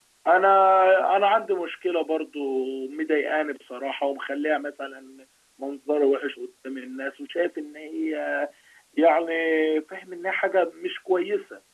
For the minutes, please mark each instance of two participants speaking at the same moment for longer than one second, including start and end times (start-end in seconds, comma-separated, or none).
none